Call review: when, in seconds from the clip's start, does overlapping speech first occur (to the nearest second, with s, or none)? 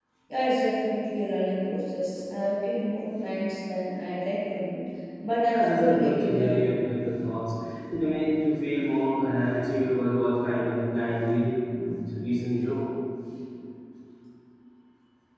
5 s